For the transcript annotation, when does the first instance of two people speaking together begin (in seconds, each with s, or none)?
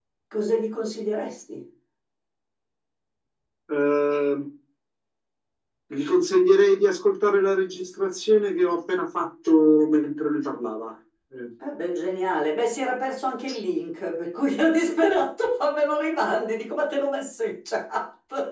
none